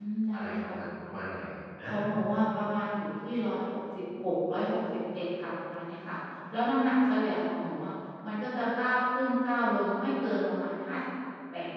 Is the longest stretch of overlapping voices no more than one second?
Yes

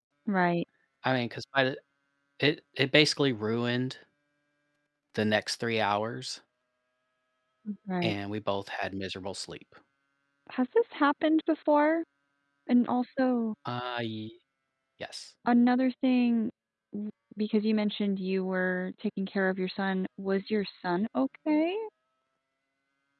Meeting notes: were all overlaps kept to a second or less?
Yes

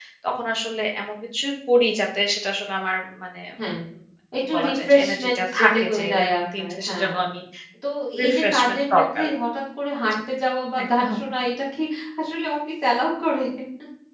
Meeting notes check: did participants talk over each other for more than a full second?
Yes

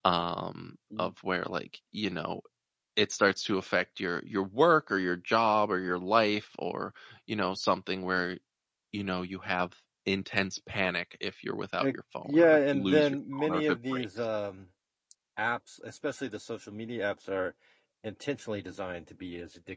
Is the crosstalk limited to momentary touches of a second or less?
No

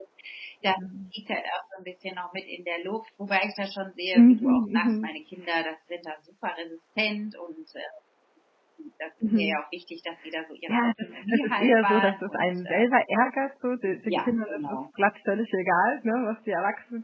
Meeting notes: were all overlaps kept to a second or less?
No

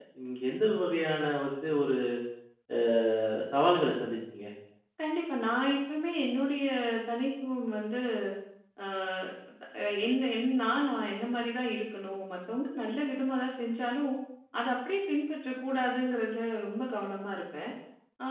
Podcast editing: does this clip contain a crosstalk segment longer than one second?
No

